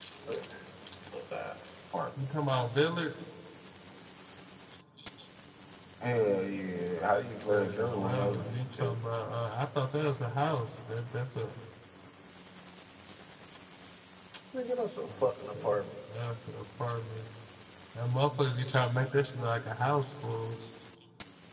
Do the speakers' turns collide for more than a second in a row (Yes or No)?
Yes